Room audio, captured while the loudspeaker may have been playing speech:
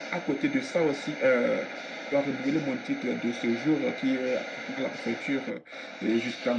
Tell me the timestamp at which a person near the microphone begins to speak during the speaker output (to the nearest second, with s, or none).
none